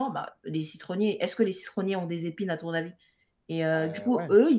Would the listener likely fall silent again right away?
Yes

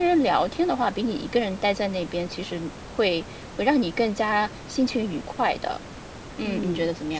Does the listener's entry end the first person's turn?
Yes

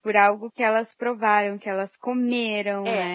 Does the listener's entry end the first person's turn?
Yes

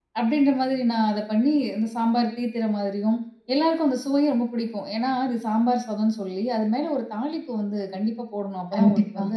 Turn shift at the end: No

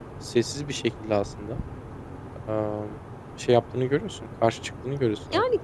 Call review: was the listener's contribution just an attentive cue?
No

